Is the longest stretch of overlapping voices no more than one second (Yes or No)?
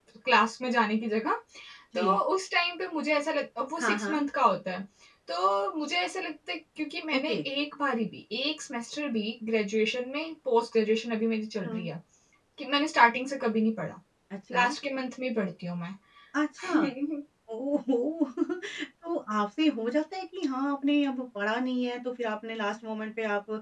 Yes